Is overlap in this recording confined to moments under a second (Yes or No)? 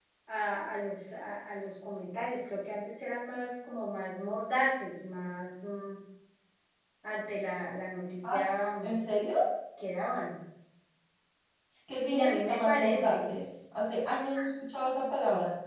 No